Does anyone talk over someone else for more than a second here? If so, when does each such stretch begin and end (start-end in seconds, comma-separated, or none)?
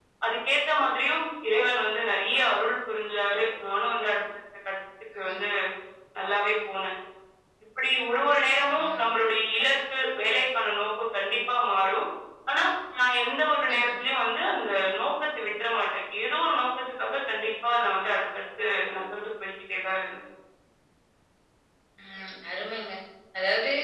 none